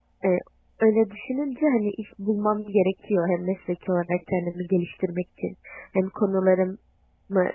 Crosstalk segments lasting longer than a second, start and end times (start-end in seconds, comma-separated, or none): none